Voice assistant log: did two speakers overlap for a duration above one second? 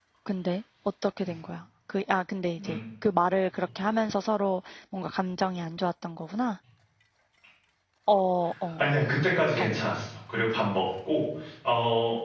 No

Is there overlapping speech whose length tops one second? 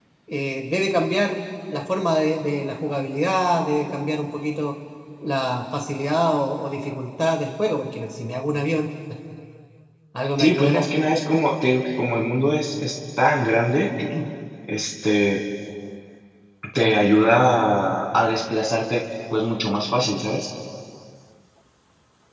No

